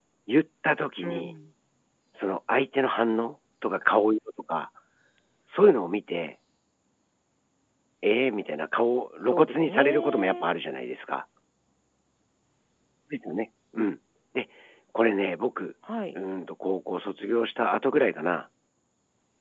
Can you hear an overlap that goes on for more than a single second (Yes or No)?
Yes